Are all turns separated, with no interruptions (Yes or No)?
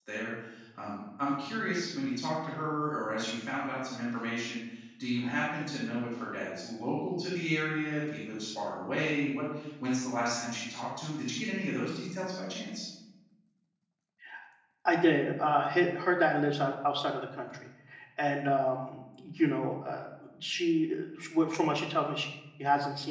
Yes